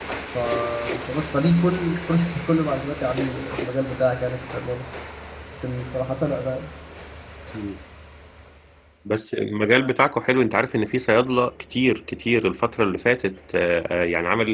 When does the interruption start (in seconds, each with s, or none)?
none